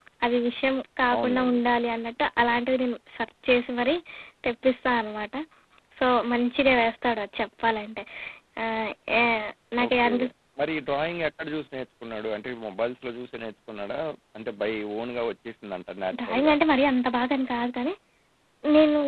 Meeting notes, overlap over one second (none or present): none